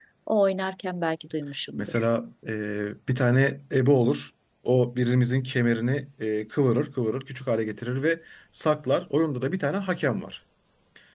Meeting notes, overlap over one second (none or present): none